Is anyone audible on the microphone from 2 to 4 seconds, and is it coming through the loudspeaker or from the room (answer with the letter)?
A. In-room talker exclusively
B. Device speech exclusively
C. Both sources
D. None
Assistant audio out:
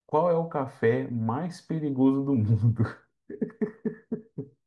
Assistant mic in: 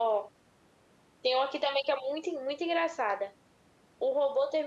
A